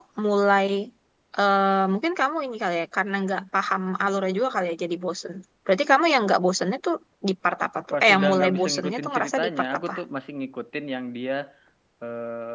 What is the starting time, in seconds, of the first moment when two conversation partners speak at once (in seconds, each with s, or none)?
7.9 s